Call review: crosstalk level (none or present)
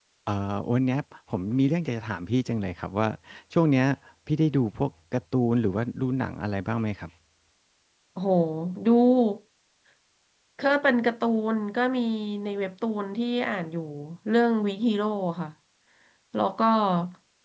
none